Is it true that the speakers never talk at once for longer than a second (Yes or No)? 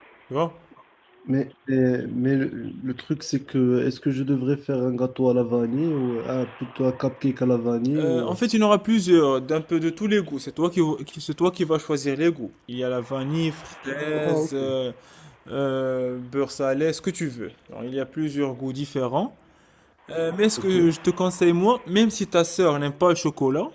Yes